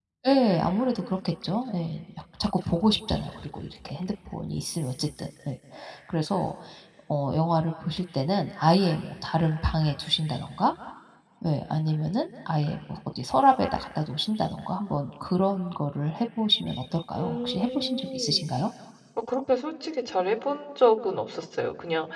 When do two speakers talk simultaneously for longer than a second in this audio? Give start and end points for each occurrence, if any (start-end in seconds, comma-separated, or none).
17.2-18.5